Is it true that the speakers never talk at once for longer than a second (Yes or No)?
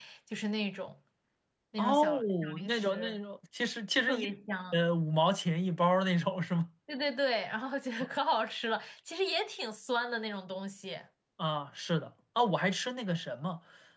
No